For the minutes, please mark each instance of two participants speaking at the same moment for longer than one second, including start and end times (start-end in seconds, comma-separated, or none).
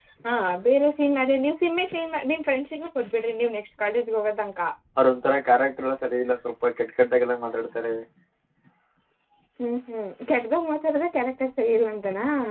none